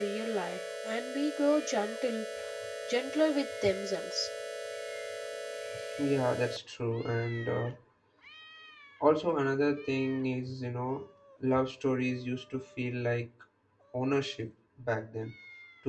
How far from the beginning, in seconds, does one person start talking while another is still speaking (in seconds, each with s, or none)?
none